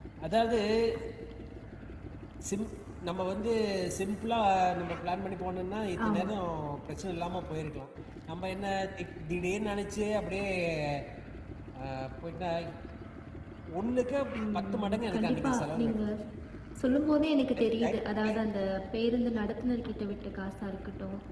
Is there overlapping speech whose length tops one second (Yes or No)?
Yes